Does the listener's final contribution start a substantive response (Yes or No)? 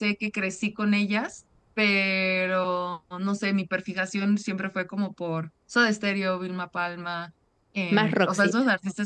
No